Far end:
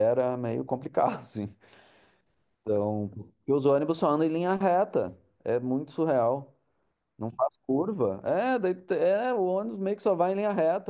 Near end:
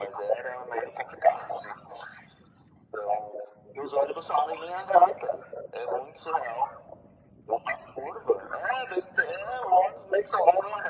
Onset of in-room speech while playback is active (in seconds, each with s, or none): none